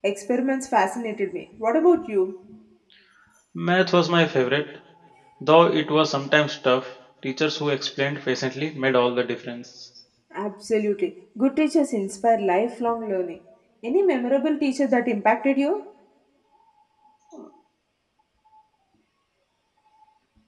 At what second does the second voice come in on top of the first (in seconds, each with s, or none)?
none